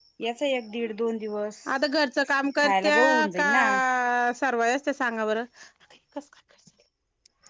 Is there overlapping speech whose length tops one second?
Yes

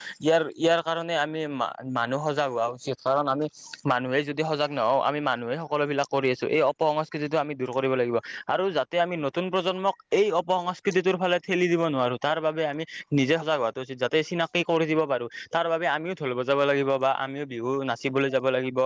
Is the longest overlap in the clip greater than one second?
No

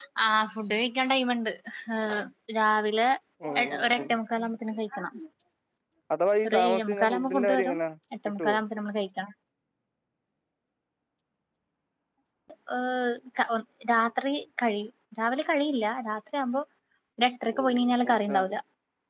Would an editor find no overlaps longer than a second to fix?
No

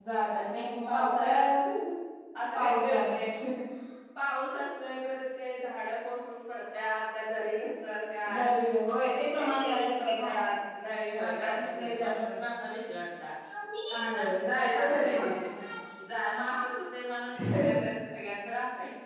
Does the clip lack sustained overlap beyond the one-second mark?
No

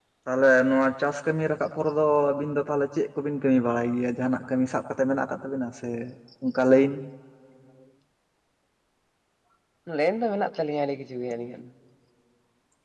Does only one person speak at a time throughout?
Yes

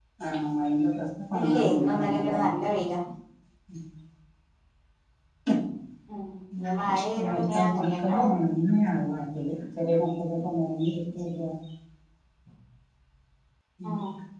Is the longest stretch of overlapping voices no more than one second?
No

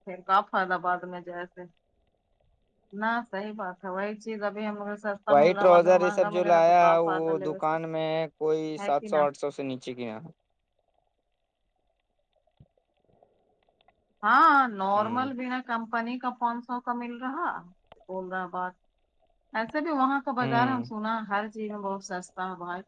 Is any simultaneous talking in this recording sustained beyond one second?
Yes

